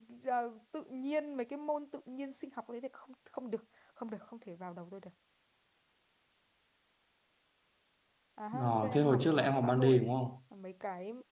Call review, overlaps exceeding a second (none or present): present